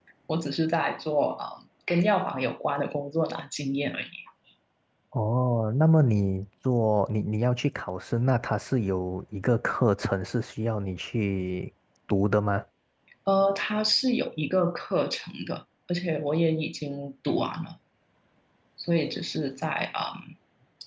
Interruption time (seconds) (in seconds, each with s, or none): none